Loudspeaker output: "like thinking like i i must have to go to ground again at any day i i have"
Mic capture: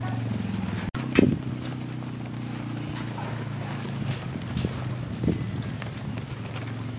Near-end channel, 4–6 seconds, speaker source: neither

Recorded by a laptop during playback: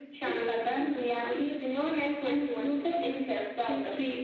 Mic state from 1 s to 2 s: echo only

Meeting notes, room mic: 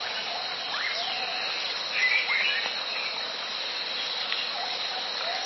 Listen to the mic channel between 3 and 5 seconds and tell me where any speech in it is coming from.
neither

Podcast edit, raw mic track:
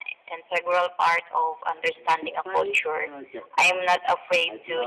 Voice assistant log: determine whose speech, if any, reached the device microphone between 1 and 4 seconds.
both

